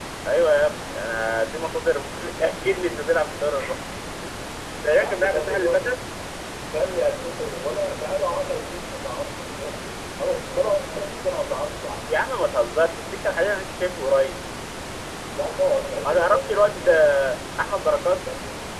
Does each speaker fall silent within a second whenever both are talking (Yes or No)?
No